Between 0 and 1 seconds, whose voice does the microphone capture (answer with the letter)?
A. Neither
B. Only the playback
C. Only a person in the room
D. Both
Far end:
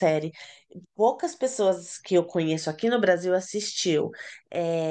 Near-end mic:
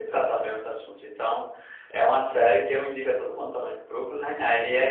C